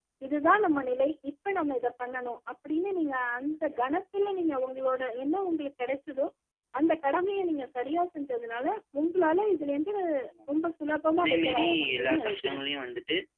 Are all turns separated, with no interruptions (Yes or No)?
No